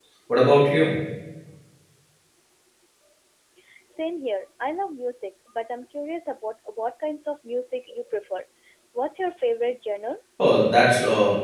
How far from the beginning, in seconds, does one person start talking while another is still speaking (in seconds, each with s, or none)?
none